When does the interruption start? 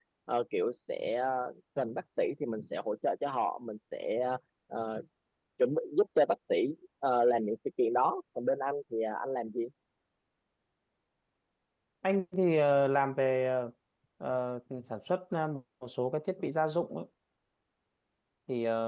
none

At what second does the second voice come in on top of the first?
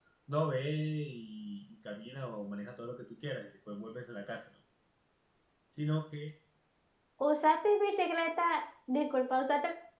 none

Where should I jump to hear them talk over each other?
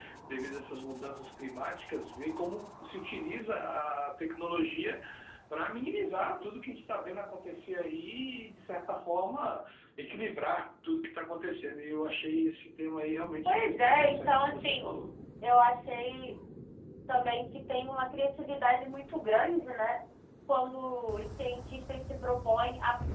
13.4 s

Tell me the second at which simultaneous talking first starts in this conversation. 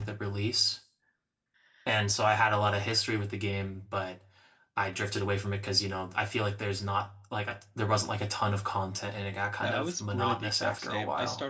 9.6 s

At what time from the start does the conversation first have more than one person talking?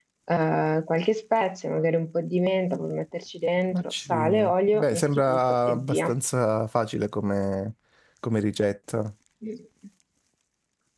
3.7 s

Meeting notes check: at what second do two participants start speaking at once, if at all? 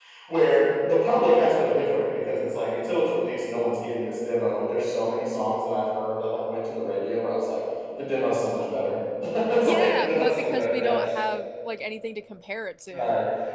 9.7 s

